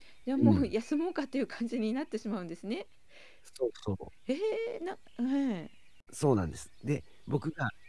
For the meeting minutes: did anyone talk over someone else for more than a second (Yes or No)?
No